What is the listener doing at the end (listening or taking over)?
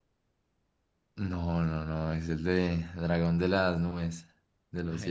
taking over